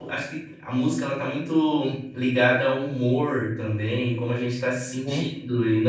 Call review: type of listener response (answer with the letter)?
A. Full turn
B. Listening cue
B